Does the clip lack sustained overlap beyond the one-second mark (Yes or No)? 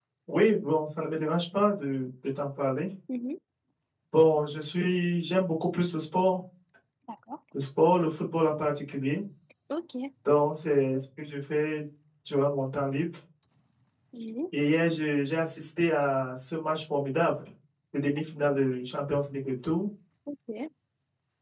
Yes